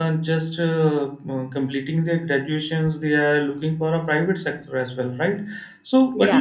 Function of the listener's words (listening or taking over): listening